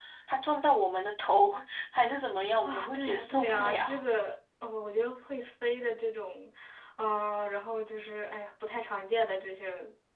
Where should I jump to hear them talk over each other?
3 s

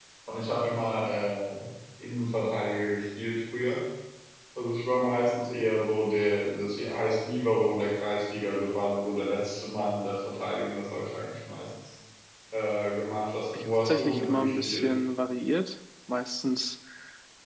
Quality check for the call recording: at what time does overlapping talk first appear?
14 s

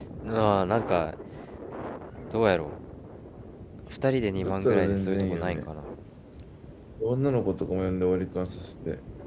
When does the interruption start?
4 s

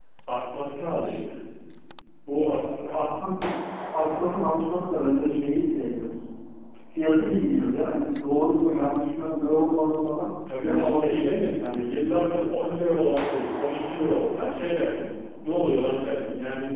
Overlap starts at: 10 s

